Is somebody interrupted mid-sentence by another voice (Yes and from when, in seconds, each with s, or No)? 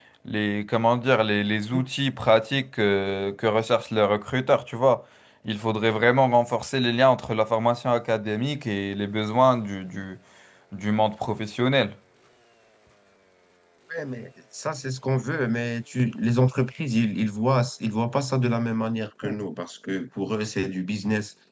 No